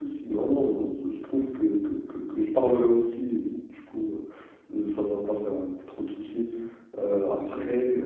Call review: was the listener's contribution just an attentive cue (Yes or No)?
Yes